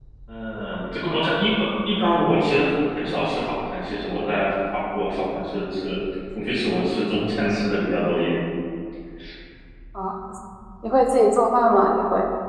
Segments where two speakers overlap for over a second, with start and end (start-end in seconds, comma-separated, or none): none